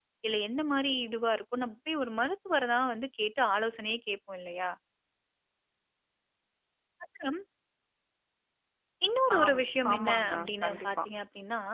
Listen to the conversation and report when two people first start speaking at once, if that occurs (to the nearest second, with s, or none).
9 s